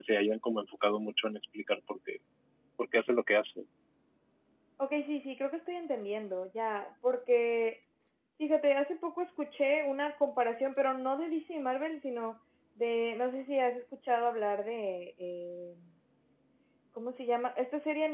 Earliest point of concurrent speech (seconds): none

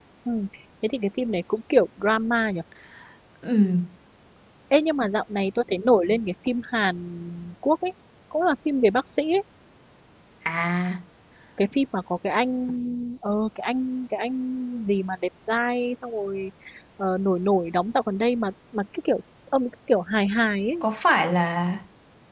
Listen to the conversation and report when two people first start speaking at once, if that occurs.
none

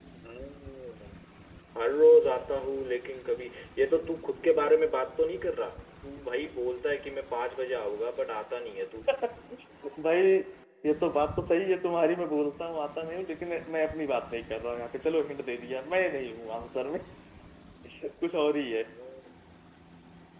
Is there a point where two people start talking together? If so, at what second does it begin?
none

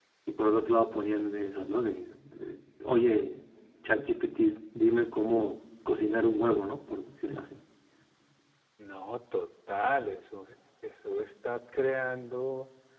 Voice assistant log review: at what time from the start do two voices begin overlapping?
none

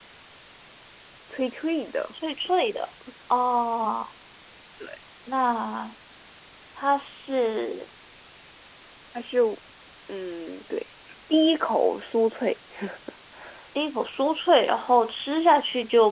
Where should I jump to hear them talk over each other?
none

